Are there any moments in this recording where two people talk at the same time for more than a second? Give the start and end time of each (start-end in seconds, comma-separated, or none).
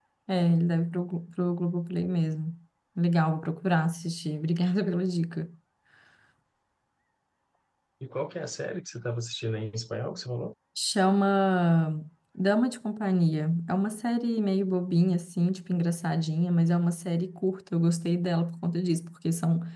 none